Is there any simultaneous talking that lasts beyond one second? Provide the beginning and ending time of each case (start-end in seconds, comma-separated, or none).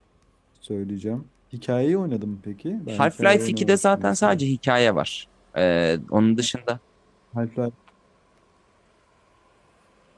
3.0-4.4